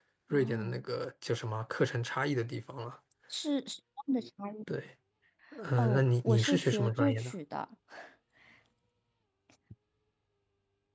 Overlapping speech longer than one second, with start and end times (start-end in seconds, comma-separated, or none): 5.8-7.3